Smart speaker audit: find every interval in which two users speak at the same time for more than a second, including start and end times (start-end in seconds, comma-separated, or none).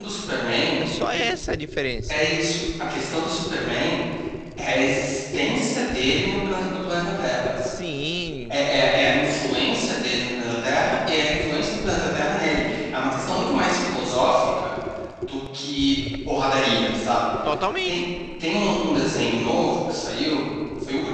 none